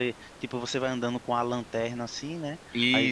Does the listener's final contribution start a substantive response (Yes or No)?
No